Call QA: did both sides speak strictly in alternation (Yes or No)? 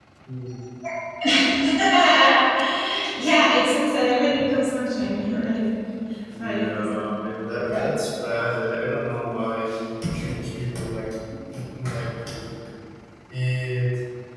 No